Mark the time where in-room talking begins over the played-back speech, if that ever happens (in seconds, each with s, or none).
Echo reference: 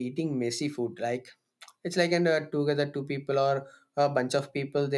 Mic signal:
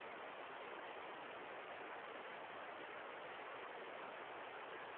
none